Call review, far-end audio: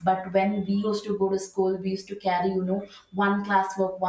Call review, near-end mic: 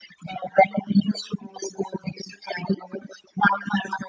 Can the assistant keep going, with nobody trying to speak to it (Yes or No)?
Yes